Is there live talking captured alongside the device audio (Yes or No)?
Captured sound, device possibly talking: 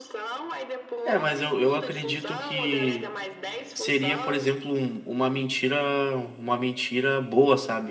Yes